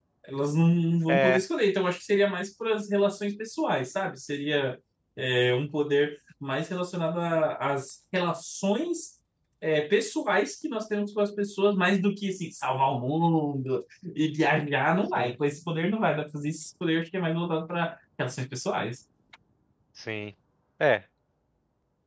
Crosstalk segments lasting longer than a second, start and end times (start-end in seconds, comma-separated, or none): none